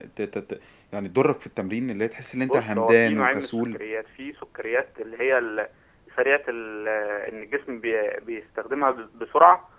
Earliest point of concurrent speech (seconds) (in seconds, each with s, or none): 2.4 s